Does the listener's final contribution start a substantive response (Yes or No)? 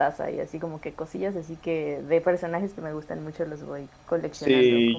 Yes